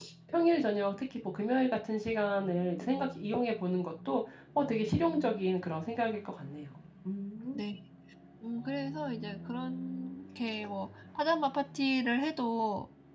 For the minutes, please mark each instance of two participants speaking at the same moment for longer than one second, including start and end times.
none

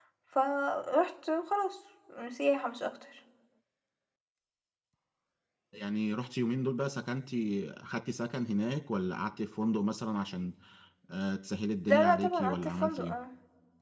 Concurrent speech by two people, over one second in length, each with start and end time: 11.9-13.2

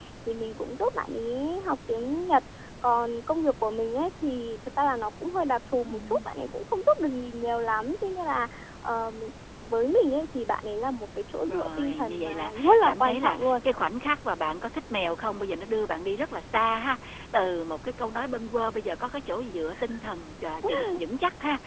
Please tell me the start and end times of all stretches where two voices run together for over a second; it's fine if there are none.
11.5-13.6

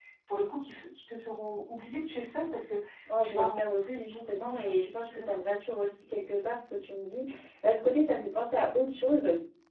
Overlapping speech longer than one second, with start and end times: 3.2-5.4

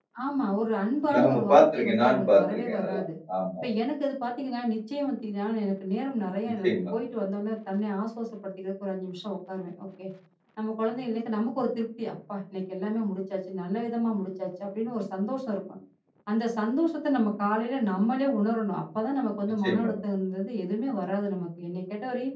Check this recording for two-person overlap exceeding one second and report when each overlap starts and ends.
1.1-3.0

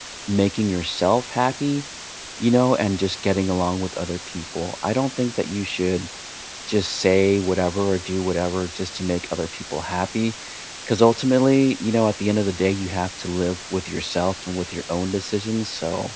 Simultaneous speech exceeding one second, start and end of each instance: none

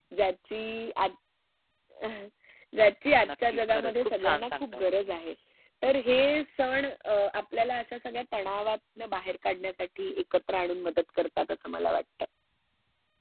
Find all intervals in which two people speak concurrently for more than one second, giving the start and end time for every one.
3.5-4.9

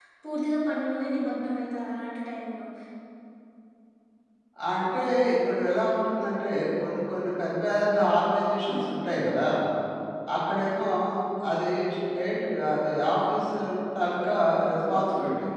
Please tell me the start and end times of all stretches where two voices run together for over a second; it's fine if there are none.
none

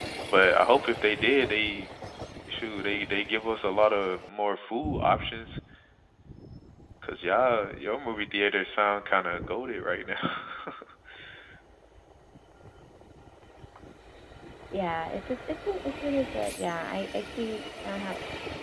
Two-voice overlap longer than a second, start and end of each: none

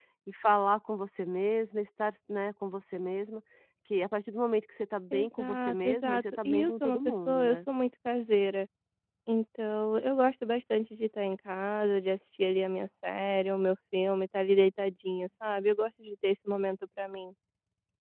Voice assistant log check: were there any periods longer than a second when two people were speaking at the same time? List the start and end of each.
5.1-7.6

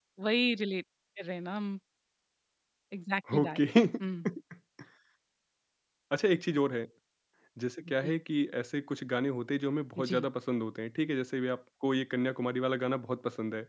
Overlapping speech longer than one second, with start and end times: none

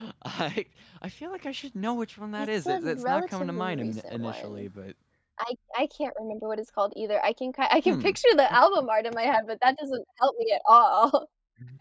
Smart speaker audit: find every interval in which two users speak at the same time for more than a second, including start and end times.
2.4-4.7

